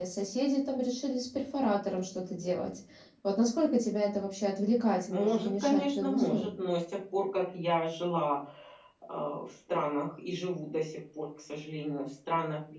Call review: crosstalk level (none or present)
present